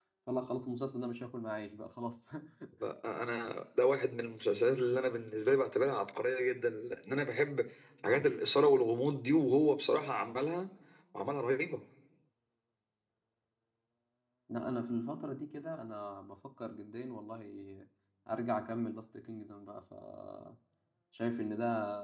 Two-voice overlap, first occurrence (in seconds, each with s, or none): none